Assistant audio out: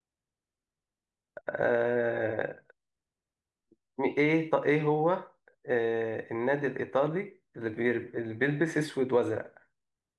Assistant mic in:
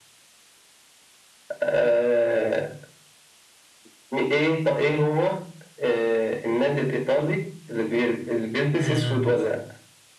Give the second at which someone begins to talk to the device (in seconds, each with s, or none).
8.8 s